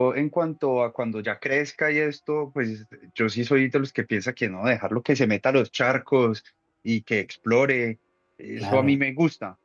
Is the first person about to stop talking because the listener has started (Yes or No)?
No